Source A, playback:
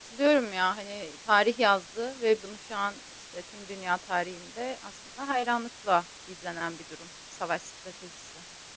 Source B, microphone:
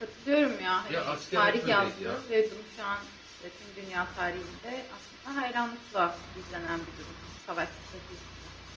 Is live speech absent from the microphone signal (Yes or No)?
No